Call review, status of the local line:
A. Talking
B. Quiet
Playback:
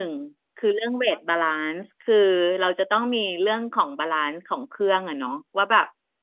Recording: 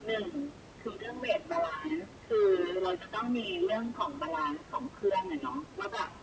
B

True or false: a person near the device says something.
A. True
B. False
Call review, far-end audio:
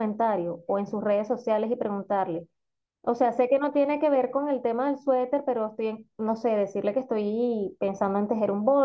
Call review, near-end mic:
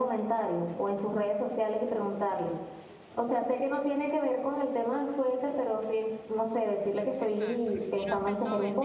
A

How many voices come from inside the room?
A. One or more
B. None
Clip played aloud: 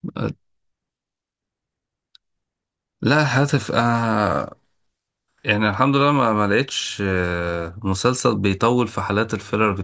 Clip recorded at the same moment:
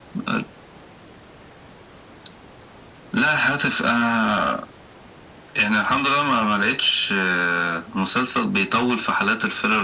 B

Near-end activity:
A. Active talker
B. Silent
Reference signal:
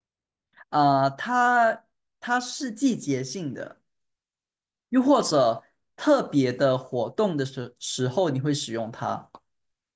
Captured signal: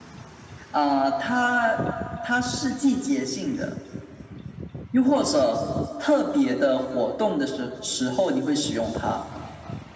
B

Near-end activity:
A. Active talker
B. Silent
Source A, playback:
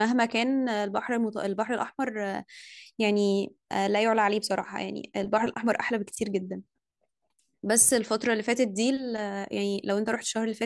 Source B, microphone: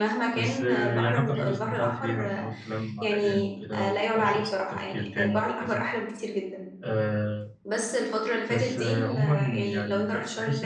A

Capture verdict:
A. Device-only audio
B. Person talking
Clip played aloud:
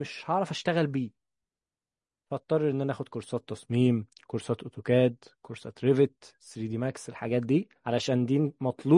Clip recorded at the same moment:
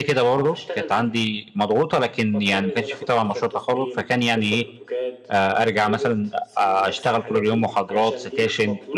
B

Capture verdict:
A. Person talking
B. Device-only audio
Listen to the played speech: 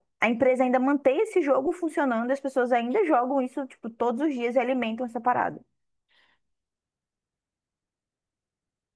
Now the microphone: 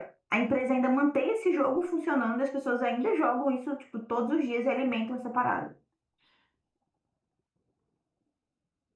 B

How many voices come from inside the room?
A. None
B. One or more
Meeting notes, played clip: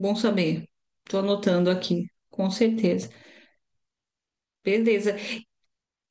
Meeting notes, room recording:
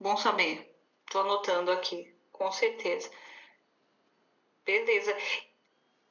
A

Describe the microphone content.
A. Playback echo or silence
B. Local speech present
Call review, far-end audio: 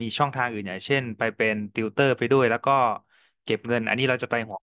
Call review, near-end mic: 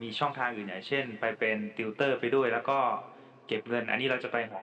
A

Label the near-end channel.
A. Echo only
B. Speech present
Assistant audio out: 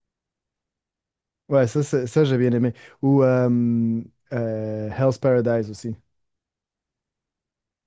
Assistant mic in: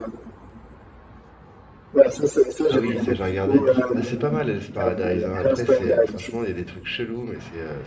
B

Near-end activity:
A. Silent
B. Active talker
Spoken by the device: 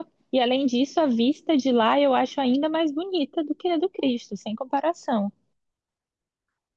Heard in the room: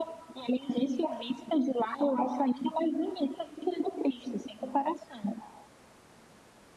A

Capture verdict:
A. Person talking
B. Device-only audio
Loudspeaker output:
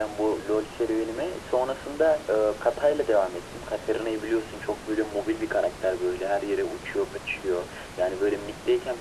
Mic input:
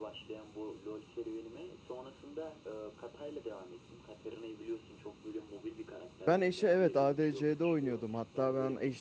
A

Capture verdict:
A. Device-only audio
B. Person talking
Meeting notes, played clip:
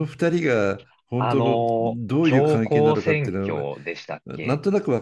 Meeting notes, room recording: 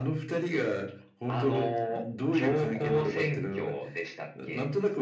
A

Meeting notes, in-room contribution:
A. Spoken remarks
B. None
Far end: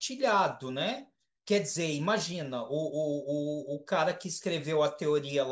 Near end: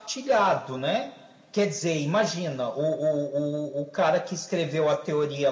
B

